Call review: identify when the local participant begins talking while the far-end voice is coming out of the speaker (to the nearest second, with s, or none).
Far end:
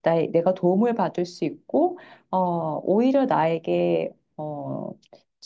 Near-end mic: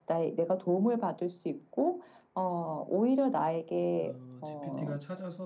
4 s